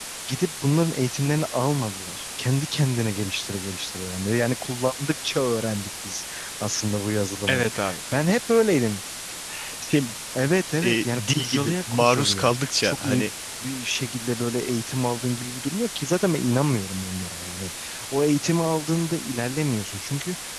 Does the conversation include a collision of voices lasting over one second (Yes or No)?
Yes